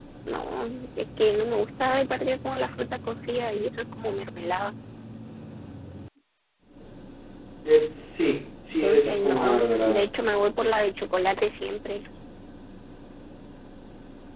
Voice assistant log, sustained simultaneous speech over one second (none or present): present